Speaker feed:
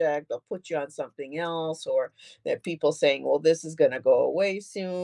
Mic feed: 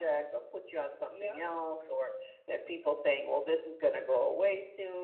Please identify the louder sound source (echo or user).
echo